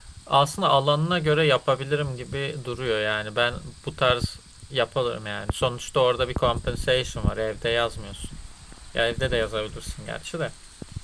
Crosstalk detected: No

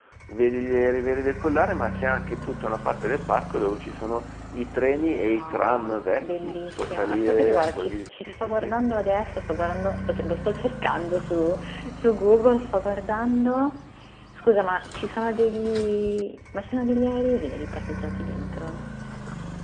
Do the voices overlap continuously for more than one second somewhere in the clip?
Yes, from 5.0 s

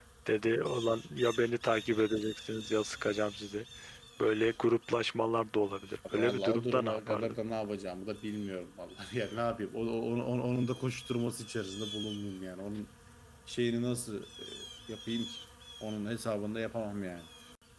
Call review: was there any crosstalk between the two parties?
Yes, from 6.0 s

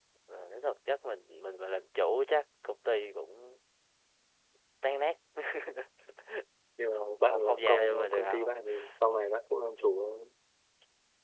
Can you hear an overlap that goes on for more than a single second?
Yes, from 7.0 s

